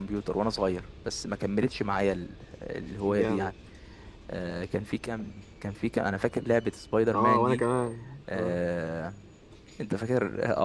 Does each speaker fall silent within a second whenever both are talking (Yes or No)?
Yes